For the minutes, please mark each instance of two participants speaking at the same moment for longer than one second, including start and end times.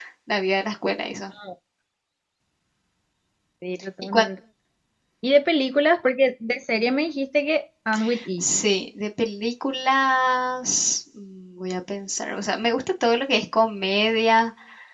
none

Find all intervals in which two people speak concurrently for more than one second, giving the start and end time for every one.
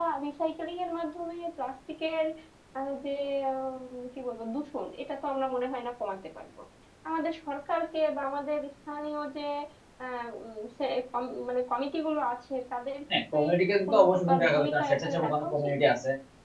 13.9-15.8

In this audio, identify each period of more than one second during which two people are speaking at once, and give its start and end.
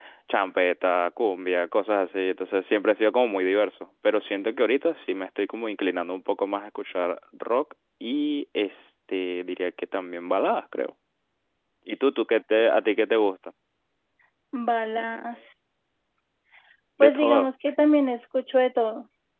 none

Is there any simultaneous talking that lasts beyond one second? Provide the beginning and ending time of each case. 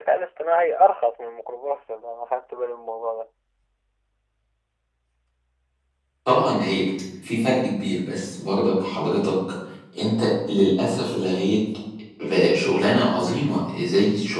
none

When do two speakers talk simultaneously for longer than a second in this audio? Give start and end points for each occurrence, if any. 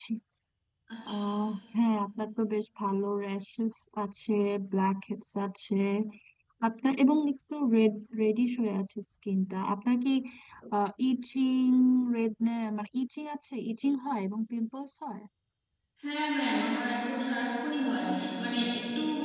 none

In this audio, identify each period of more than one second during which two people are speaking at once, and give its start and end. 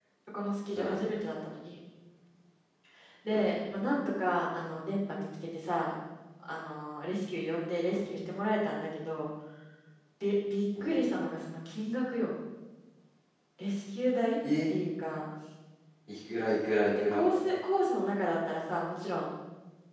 none

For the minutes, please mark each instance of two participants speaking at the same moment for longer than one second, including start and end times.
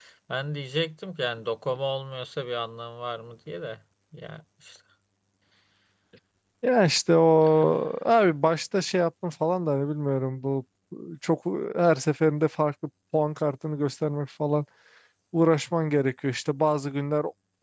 none

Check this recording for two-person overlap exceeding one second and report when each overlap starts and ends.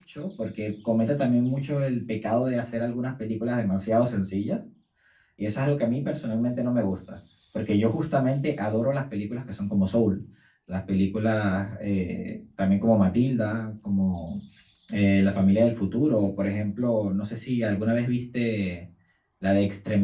none

